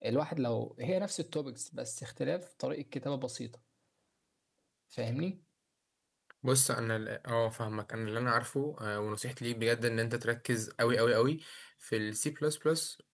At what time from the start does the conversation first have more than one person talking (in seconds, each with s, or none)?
none